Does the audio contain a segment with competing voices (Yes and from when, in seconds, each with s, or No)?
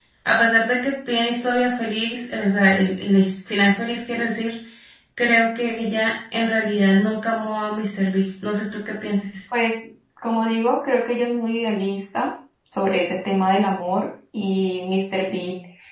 No